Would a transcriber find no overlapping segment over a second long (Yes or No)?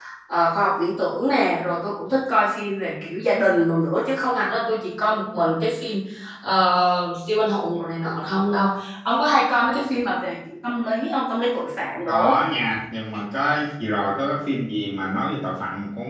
Yes